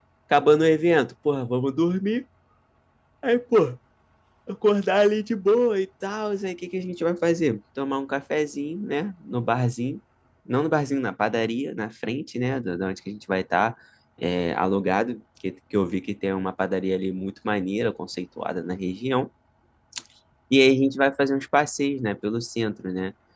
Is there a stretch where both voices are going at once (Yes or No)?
No